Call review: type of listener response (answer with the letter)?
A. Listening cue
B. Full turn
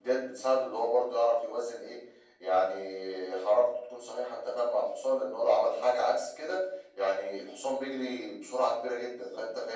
A